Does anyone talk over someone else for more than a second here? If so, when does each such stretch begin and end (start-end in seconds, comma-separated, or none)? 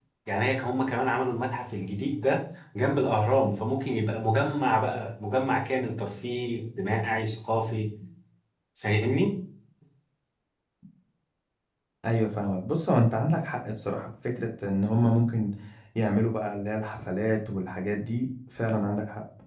none